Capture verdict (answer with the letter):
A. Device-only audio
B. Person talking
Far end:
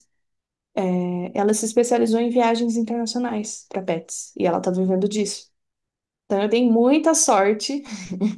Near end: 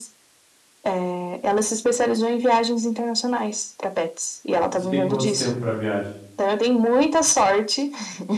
B